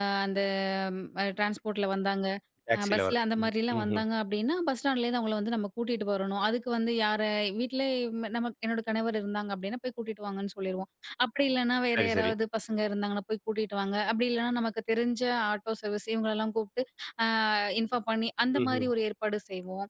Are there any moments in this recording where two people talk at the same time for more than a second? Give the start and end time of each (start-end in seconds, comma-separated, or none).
2.8-4.0